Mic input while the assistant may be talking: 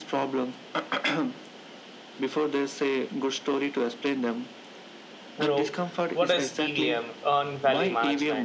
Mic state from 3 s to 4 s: echo only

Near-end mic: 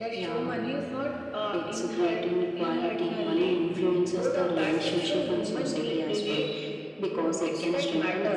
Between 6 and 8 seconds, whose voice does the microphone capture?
echo only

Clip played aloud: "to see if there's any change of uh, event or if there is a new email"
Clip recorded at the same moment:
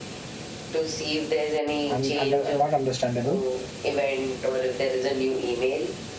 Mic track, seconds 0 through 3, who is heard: both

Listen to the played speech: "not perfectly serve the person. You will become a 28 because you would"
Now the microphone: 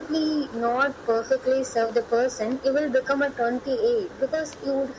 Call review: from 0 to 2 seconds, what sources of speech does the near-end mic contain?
echo only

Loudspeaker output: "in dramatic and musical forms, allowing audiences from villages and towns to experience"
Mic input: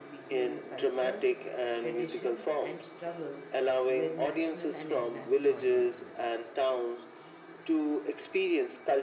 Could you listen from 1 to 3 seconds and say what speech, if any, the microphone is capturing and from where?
both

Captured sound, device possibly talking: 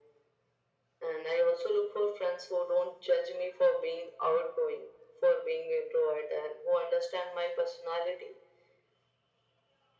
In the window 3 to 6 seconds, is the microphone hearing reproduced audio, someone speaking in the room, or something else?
echo only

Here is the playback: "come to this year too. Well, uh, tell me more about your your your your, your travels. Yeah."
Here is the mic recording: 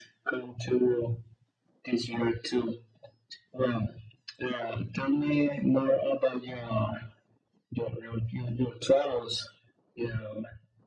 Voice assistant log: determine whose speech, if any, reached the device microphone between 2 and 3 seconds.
echo only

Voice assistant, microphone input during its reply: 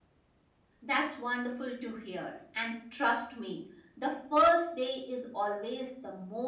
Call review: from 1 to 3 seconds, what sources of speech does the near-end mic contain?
user only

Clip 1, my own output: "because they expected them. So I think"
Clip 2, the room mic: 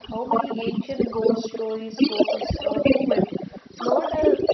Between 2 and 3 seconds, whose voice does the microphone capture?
both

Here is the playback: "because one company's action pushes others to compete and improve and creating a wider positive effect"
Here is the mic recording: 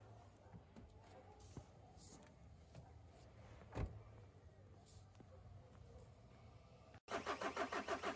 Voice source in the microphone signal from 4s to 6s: neither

